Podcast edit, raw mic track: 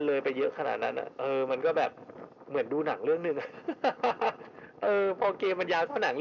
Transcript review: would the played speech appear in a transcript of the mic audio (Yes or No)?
Yes